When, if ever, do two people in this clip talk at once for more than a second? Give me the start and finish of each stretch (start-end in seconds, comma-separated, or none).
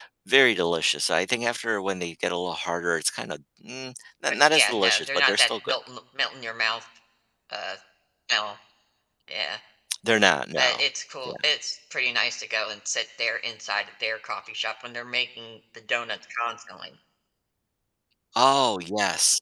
4.3-5.8